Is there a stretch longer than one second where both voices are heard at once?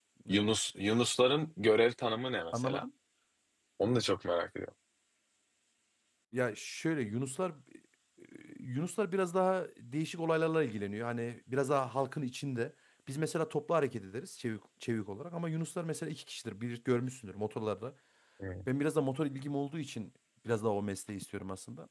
No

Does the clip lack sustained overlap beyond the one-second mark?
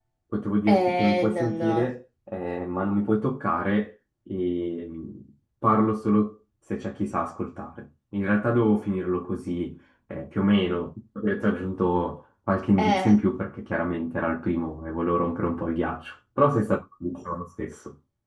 No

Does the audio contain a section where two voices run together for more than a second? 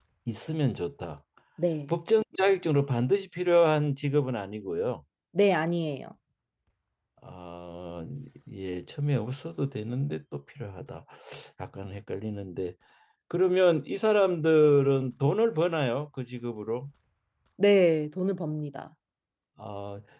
No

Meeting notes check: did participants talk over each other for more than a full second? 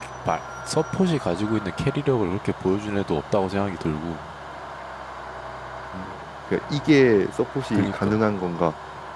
No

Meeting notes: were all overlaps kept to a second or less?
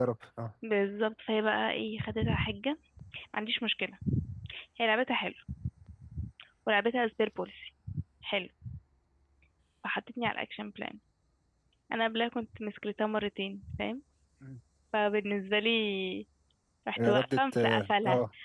No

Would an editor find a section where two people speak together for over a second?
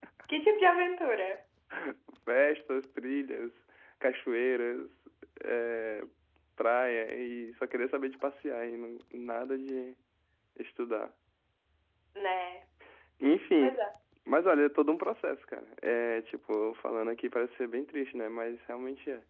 No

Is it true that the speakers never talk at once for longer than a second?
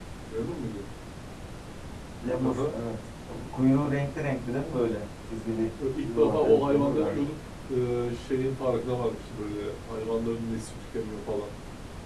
No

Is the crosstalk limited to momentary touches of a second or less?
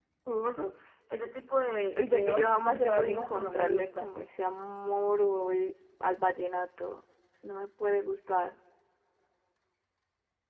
No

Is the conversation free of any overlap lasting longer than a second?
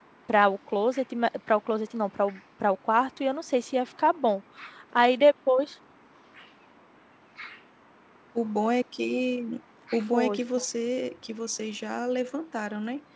Yes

